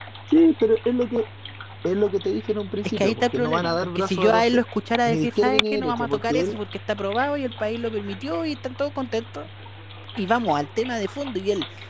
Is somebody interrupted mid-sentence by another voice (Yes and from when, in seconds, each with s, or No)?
Yes, from 3.0 s